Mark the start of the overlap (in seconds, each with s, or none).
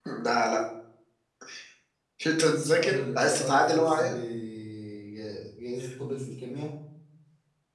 2.5 s